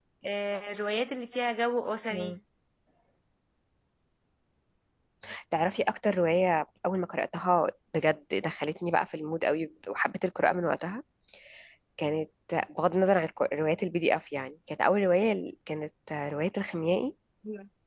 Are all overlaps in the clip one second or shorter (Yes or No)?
Yes